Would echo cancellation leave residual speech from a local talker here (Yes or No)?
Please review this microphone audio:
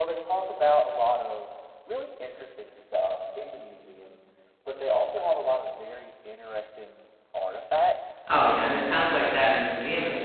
Yes